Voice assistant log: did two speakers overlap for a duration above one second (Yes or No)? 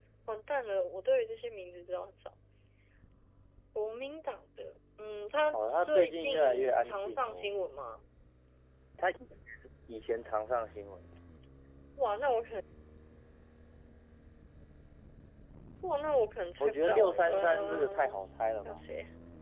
Yes